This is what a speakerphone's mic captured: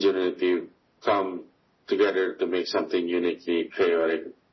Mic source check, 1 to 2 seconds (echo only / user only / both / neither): echo only